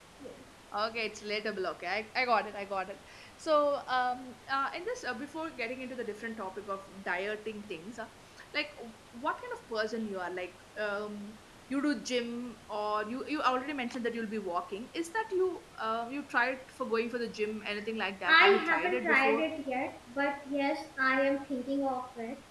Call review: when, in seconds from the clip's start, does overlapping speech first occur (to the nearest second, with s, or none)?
18 s